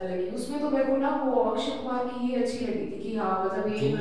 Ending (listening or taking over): taking over